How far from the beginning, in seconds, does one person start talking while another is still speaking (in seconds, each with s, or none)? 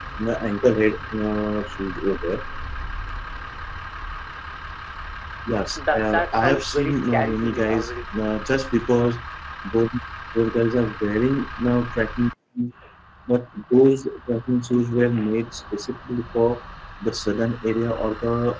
5.8 s